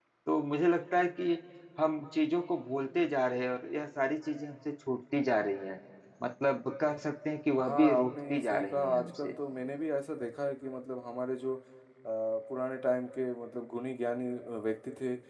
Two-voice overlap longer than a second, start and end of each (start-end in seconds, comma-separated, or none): 7.6-9.3